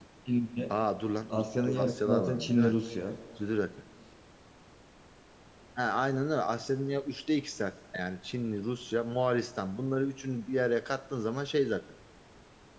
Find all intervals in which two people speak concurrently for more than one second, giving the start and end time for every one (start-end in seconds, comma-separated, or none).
1.3-2.8